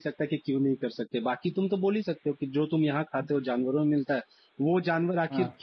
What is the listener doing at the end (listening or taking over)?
listening